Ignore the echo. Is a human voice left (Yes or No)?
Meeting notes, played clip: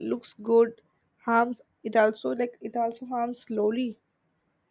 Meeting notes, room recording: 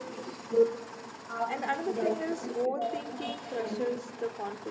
Yes